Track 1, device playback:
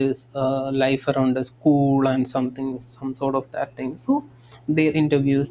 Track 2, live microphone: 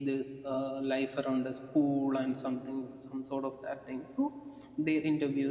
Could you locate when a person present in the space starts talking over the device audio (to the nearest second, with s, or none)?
none